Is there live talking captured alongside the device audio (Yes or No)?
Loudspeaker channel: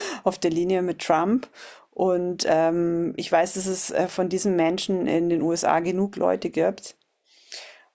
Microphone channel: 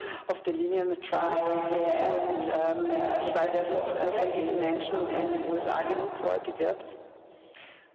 Yes